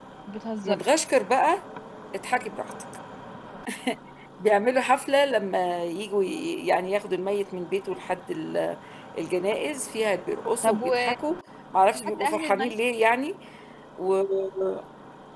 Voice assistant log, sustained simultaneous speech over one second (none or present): none